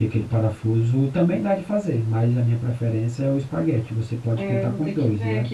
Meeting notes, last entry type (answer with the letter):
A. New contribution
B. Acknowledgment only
A